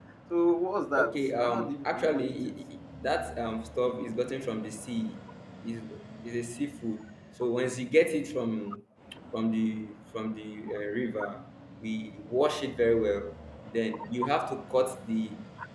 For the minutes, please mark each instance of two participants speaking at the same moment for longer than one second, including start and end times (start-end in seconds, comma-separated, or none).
1.0-2.6